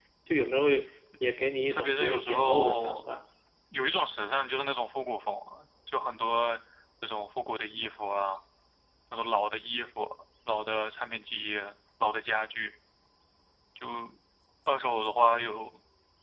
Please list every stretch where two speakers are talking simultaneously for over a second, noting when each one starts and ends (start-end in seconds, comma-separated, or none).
1.7-3.1